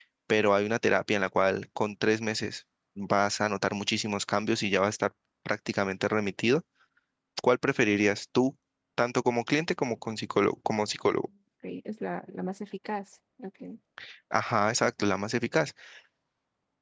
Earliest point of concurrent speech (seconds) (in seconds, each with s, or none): none